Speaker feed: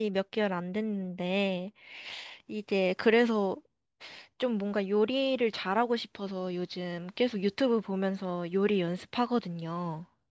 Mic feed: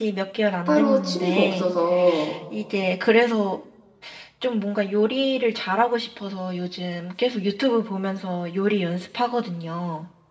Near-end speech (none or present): present